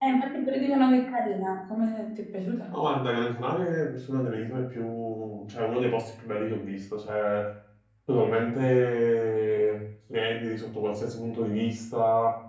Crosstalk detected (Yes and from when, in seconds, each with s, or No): No